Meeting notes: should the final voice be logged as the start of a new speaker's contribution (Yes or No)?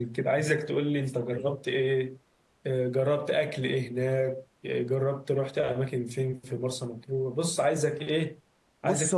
No